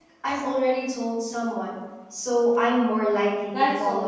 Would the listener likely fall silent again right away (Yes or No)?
No